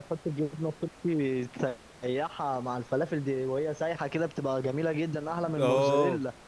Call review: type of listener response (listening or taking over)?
taking over